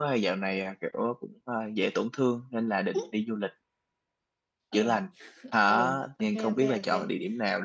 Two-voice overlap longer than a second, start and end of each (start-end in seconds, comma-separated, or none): 5.7-7.1